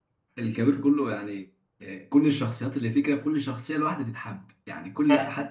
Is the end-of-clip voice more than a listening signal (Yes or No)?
Yes